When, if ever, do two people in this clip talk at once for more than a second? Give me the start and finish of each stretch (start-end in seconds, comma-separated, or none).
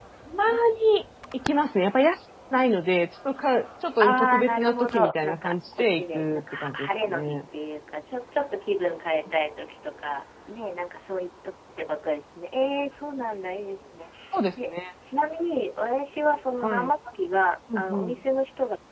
4.0-7.4